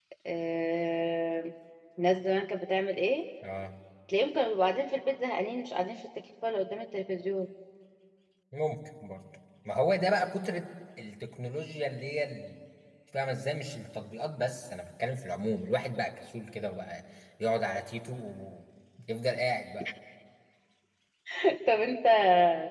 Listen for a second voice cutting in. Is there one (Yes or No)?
No